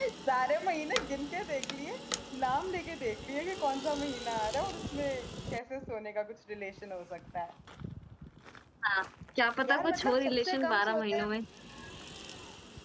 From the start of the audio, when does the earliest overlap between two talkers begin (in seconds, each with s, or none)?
9.7 s